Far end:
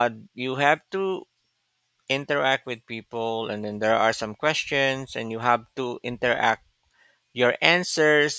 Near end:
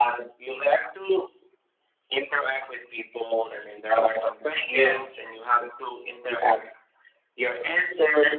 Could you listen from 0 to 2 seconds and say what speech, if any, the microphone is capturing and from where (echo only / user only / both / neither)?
echo only